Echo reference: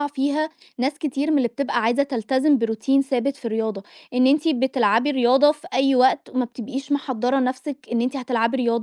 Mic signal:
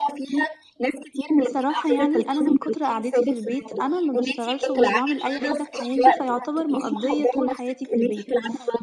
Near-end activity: present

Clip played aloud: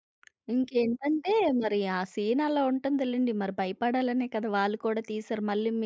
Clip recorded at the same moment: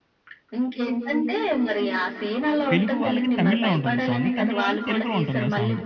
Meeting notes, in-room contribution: present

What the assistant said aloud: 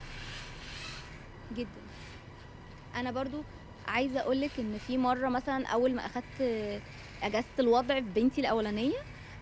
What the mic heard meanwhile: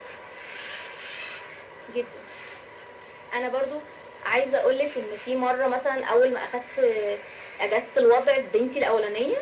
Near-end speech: none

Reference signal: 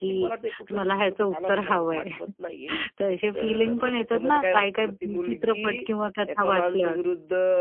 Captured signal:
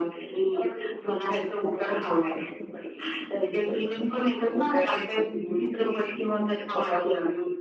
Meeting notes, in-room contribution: none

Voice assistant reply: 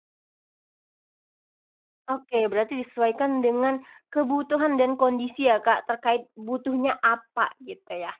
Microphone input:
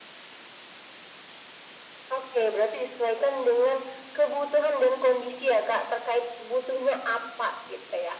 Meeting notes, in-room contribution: none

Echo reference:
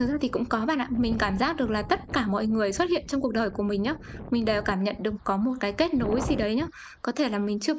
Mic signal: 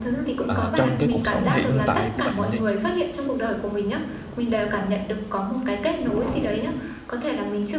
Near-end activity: present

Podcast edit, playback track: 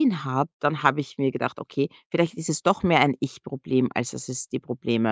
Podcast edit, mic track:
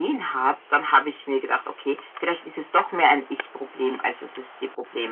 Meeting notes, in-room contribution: none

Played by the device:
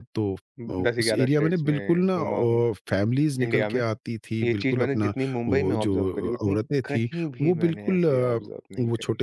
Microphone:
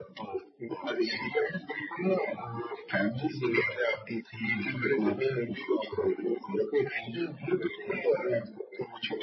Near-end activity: none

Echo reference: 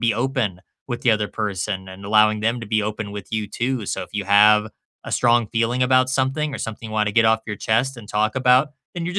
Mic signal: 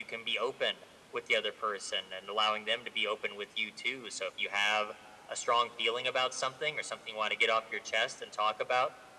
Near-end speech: none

